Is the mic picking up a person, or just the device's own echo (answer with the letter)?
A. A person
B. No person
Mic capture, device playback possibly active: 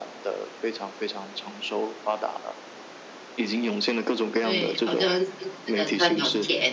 A